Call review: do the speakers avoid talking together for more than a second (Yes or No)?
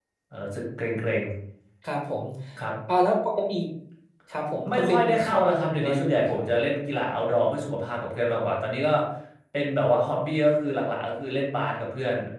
No